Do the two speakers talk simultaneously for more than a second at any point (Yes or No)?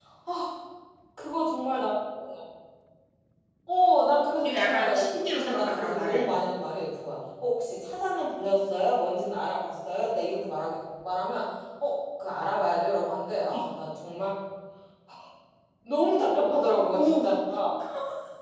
Yes